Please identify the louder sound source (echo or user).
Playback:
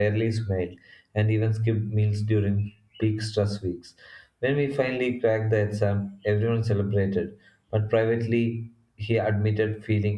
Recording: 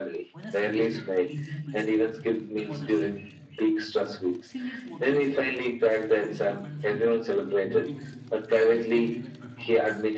echo